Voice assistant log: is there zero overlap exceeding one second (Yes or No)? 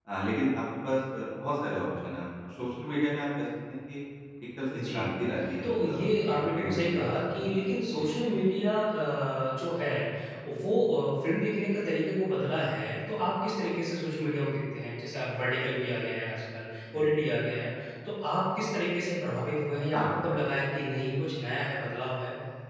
No